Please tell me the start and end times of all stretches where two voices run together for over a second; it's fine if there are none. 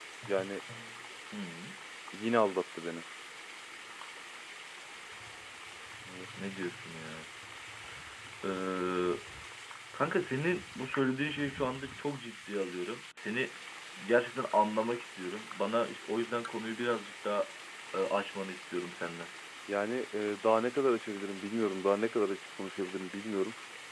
none

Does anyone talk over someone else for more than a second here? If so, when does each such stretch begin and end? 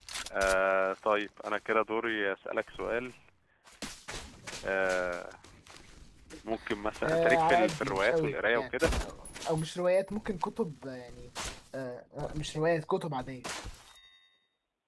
7.0-8.6

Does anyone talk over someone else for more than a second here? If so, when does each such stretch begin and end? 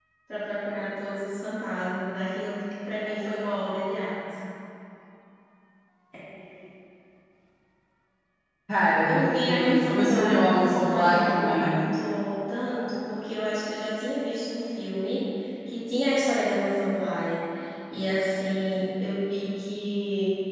9.0-11.8

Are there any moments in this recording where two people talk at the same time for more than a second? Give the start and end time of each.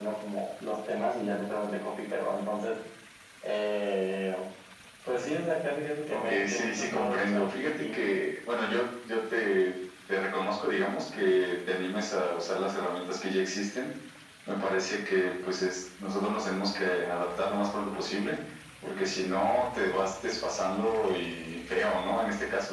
6.1-7.8

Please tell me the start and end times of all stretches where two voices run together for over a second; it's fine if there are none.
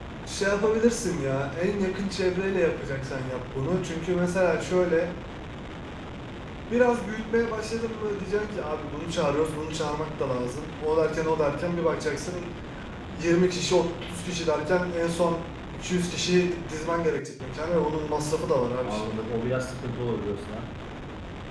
none

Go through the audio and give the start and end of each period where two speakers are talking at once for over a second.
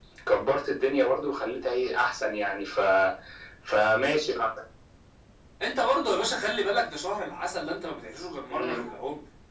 none

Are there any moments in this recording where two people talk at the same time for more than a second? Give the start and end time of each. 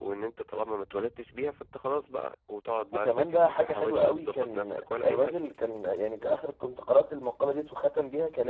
2.9-5.3

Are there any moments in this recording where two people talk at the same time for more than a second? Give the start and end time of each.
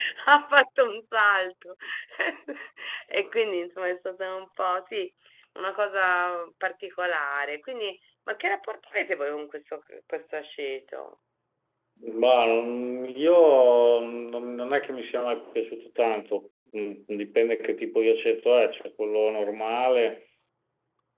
none

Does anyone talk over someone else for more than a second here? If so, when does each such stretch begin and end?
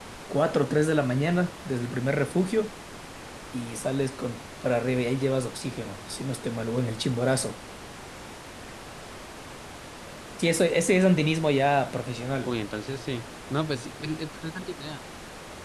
none

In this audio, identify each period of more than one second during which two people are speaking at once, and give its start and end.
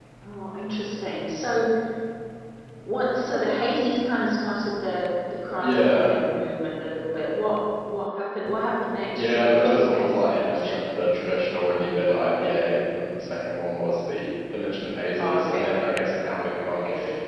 9.2-10.8

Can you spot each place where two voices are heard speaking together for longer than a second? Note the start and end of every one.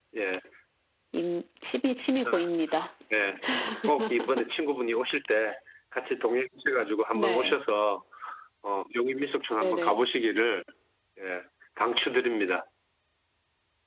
none

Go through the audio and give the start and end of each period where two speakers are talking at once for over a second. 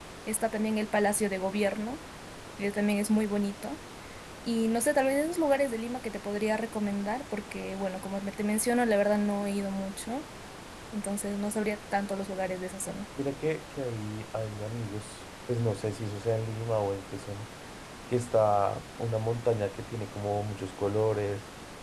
none

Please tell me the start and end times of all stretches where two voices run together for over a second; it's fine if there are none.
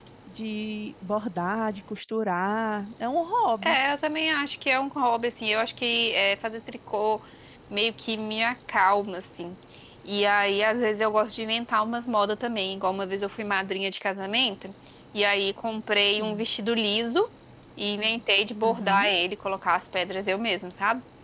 none

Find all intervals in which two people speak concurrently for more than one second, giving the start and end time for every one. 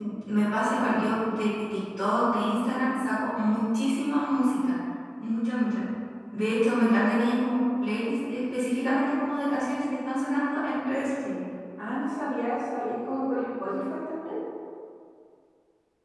none

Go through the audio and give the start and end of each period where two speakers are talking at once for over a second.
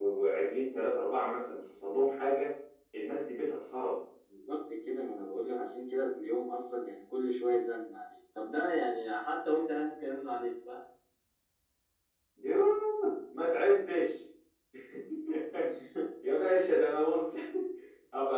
none

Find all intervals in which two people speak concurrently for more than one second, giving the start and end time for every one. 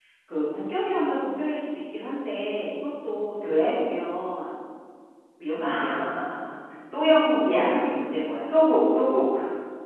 none

